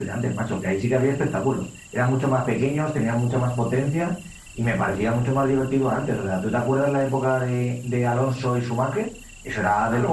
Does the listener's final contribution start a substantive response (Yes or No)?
Yes